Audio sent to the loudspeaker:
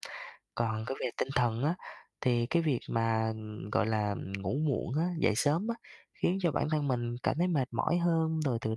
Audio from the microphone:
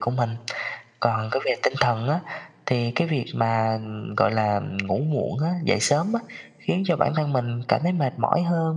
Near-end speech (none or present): none